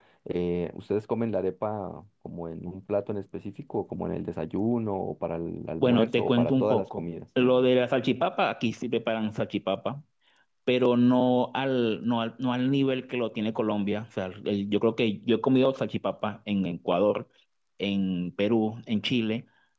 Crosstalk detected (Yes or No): Yes